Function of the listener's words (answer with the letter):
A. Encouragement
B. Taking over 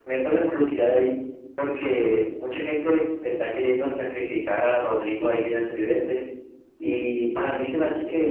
A